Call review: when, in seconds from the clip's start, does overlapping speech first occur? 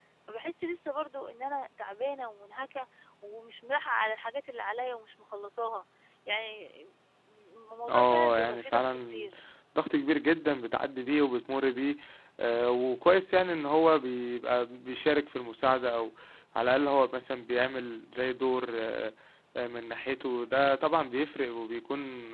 7.9 s

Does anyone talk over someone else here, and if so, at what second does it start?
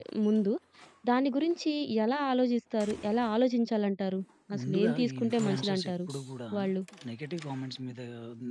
4.6 s

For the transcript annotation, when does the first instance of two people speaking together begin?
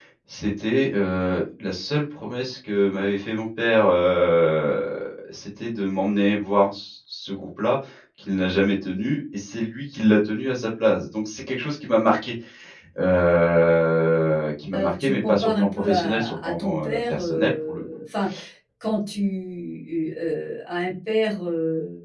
14.7 s

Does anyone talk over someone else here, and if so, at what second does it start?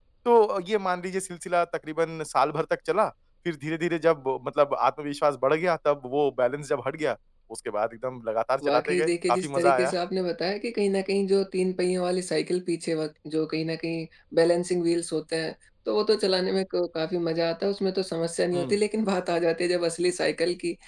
8.6 s

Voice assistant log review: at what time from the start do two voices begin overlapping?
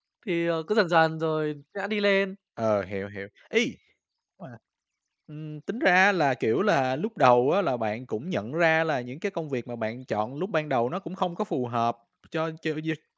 none

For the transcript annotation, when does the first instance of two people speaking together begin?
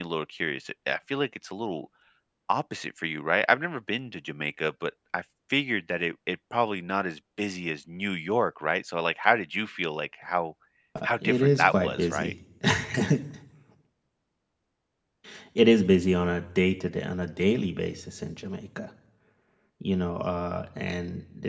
11.0 s

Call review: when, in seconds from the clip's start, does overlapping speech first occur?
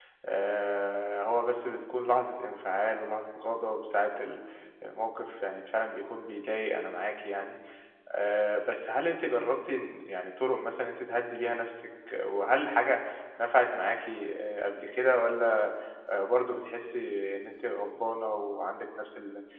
none

